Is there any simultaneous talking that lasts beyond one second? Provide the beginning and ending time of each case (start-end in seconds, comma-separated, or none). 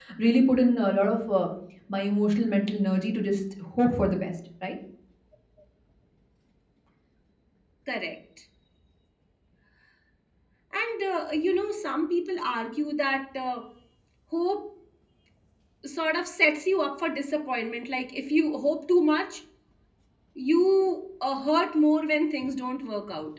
none